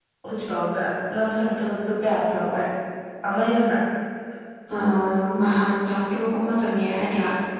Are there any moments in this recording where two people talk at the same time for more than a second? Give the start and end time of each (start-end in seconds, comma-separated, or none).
none